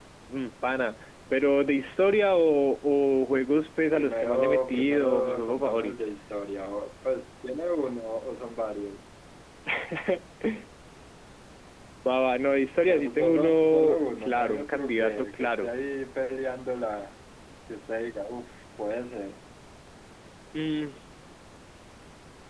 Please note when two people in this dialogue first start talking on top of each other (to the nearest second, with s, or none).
4 s